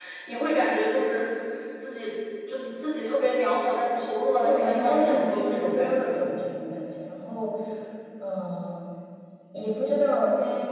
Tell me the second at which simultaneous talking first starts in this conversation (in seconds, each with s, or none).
4.4 s